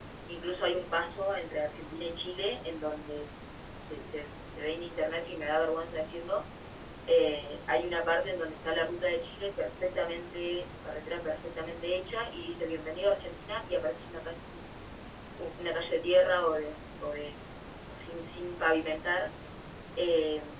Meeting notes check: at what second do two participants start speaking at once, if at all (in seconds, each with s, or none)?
none